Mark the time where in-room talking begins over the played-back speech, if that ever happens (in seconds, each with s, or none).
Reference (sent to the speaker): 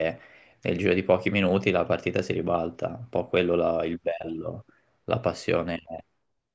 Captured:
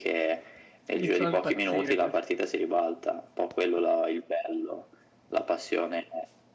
0.9 s